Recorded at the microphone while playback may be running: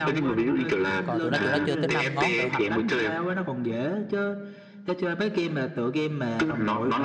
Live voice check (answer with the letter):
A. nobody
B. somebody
B